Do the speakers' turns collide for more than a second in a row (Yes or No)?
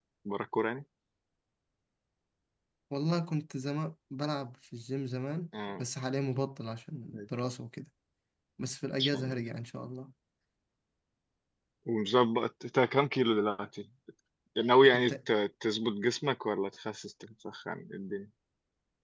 No